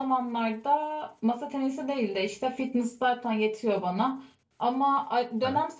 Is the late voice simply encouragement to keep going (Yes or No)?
Yes